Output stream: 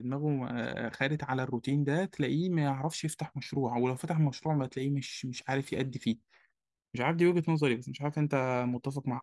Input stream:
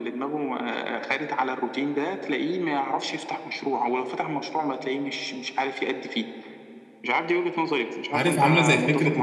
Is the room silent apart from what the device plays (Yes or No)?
No